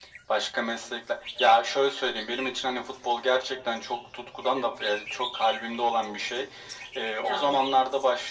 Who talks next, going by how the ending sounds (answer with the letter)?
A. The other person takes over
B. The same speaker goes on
B